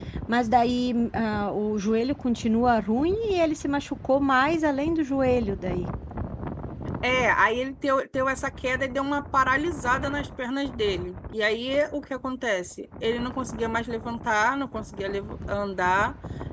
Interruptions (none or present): none